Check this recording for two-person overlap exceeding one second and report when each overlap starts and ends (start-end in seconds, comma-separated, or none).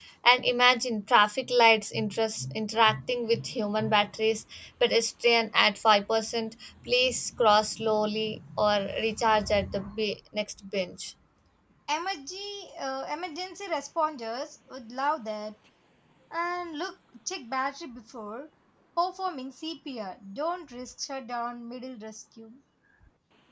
none